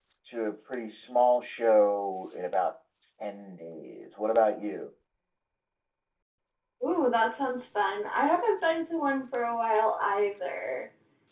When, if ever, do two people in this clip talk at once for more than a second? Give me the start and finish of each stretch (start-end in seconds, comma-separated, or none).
none